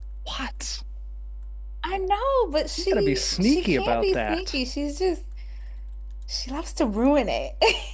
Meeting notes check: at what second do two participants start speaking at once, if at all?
2.8 s

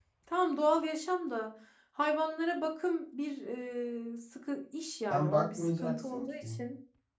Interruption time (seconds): 5.1 s

